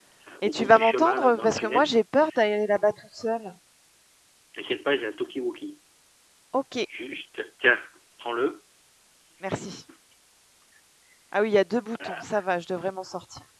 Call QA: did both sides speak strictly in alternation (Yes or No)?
No